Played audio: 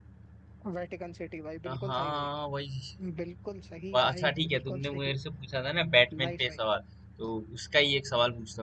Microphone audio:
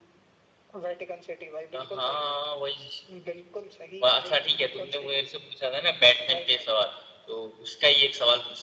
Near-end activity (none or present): none